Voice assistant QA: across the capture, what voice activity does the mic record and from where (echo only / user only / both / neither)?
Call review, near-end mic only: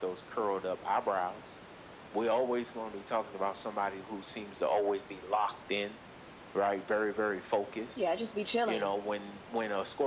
both